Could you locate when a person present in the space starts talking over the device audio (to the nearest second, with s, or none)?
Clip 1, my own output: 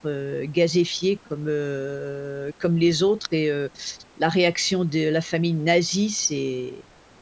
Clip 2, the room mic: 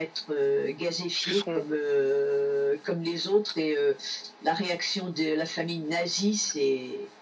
1 s